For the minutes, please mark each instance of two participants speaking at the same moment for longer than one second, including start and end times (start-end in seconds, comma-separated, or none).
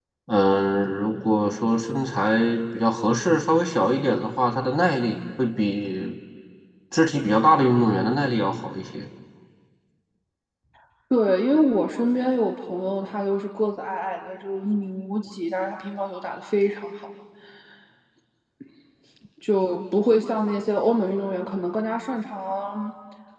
none